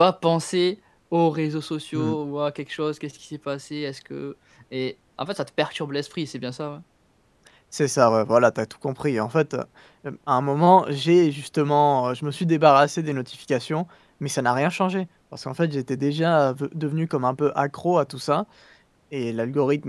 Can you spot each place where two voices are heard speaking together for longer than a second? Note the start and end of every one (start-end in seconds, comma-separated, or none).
none